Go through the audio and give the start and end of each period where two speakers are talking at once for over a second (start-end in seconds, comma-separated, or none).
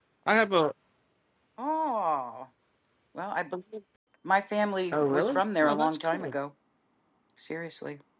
4.9-6.3